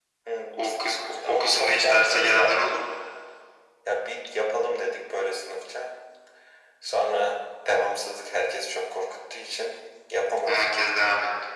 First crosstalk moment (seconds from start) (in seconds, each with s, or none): 0.5 s